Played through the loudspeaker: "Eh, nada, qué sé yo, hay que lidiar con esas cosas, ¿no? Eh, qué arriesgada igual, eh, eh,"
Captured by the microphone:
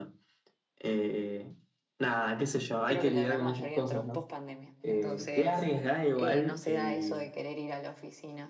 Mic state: both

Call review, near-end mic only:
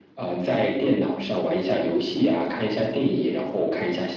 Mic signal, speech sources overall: echo only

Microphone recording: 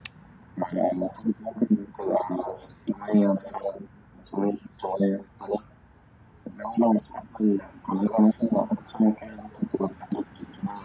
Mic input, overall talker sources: echo only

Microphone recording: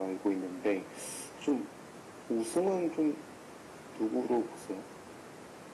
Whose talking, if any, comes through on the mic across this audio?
echo only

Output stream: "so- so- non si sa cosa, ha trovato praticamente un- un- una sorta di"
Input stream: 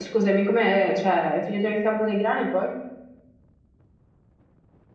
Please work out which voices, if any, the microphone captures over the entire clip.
user only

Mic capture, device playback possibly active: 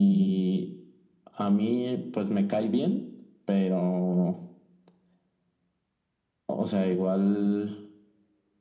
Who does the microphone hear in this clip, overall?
echo only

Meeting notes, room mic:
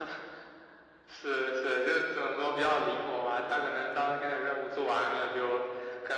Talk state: echo only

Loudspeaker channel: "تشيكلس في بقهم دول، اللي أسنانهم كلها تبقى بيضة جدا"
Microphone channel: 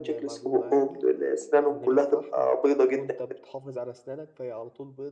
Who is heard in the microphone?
both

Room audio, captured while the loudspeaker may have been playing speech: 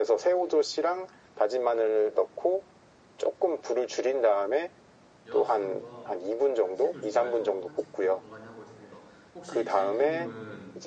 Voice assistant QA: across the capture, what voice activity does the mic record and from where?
both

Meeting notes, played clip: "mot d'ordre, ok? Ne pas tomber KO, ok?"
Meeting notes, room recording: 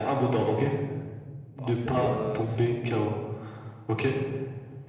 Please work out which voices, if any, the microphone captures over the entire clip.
both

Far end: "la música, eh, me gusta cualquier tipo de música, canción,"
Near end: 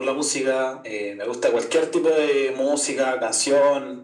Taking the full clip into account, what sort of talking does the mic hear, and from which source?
echo only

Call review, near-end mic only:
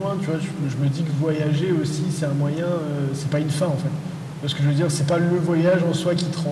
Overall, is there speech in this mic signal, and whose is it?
echo only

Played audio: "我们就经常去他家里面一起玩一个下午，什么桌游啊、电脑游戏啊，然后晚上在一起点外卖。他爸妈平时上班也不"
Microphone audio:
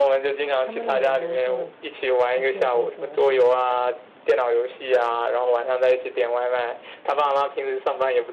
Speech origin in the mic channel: both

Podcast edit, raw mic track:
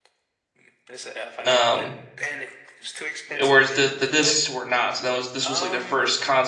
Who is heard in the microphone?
both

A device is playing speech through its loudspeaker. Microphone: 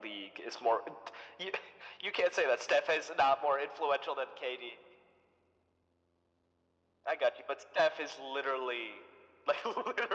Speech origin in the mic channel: echo only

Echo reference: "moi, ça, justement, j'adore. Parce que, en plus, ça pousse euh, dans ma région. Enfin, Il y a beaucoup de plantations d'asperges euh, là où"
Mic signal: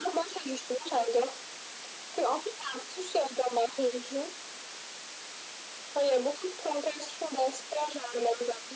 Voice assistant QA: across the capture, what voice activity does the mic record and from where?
echo only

